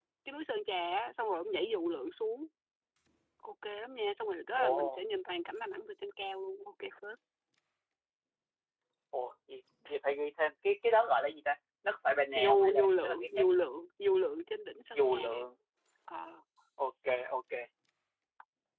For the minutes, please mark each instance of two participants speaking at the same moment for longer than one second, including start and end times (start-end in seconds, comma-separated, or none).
12.3-13.7